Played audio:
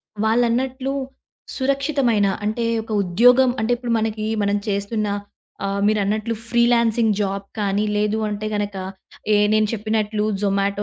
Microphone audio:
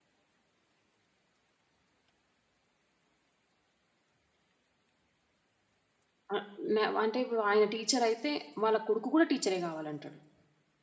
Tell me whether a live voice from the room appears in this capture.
Yes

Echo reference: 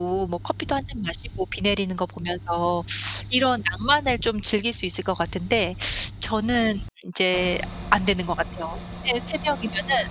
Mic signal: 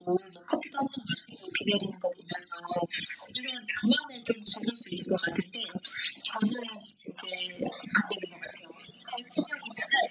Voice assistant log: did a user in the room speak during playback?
No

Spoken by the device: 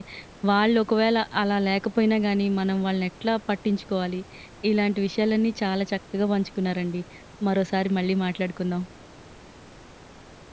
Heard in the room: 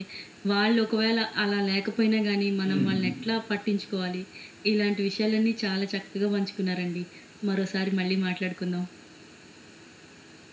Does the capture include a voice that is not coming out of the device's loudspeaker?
Yes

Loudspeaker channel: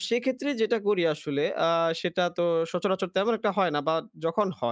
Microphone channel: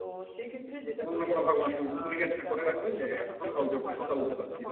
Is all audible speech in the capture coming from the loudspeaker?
No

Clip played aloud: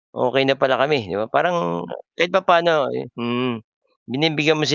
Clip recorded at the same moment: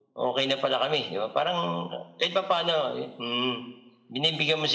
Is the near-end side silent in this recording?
Yes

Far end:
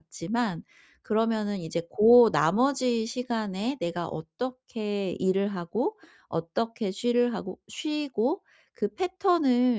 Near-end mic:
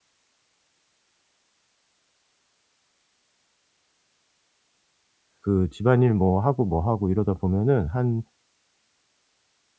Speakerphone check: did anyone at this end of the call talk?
Yes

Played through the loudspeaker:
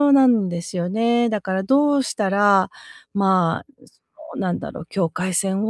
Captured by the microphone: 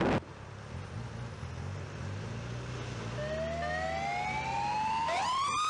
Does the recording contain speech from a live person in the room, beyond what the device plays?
No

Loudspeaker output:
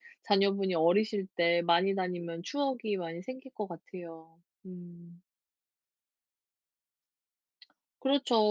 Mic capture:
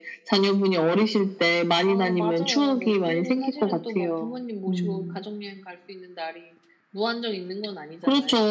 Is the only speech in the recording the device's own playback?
No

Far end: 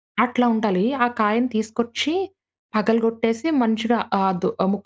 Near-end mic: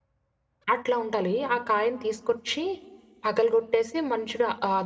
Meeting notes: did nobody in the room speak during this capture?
Yes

